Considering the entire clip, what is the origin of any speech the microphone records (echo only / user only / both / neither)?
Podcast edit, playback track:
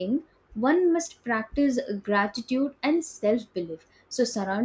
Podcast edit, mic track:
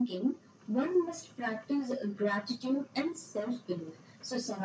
echo only